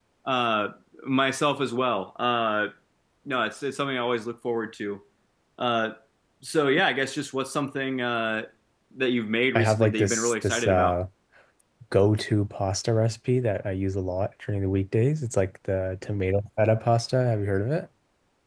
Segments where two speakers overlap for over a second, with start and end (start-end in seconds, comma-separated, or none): 9.6-11.0